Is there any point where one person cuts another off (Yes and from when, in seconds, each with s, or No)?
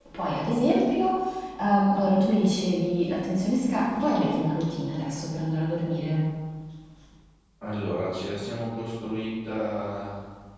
No